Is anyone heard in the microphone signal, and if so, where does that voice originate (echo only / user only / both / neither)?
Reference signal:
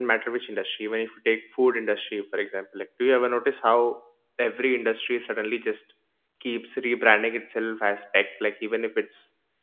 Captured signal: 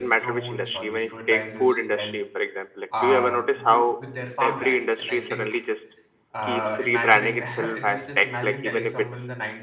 both